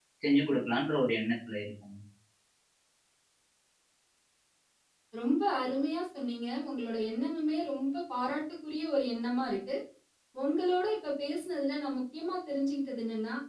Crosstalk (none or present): none